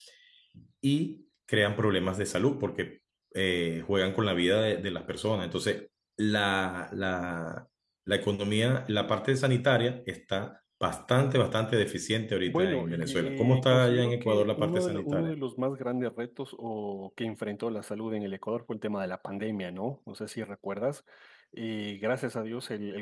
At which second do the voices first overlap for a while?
12.5 s

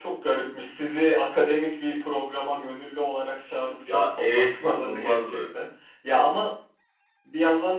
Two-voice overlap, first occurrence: 3.9 s

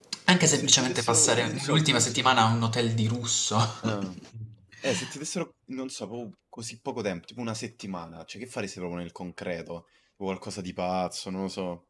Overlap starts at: 0.5 s

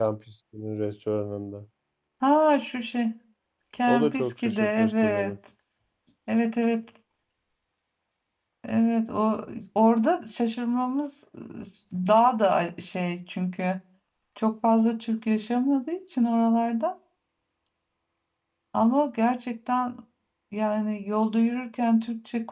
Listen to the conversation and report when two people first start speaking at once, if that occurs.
3.9 s

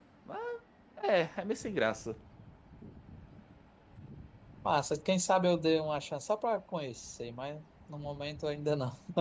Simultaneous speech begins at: none

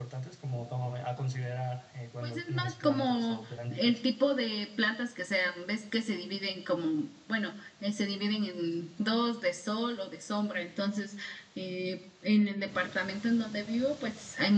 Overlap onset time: 2.2 s

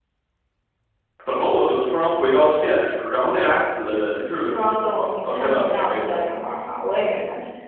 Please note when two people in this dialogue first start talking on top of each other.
4.3 s

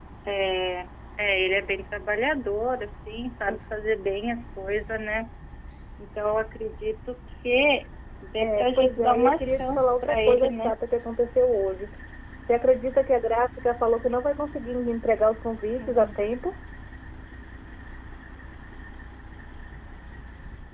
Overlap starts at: 8.4 s

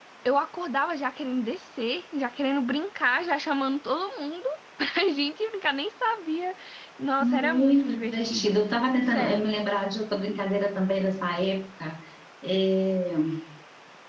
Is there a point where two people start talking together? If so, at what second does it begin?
7.2 s

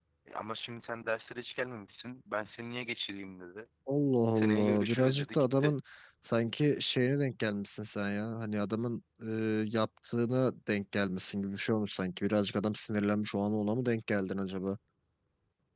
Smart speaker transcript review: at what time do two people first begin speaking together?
4.4 s

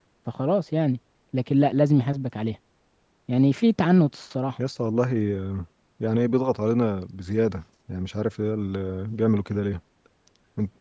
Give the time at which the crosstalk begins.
none

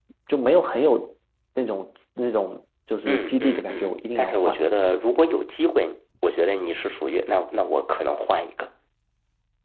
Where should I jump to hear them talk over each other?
3.1 s

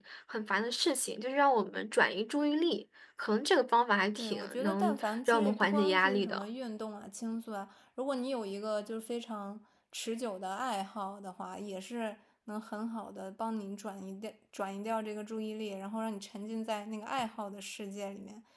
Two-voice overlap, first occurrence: 4.2 s

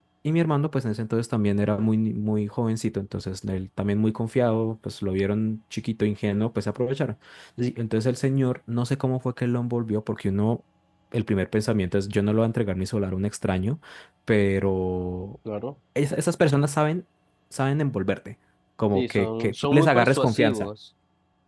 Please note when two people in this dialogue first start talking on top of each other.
18.9 s

